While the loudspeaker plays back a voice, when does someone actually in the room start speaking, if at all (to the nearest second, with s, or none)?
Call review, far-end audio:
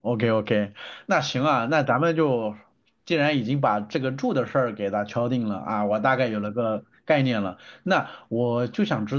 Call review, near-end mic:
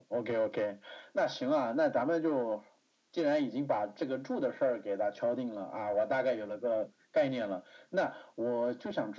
none